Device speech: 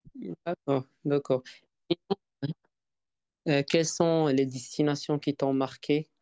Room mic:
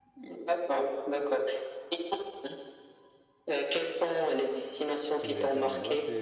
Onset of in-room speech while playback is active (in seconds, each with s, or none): 5.1 s